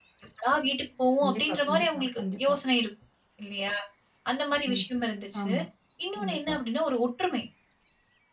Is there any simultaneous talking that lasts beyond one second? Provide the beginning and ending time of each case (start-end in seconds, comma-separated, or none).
1.2-2.5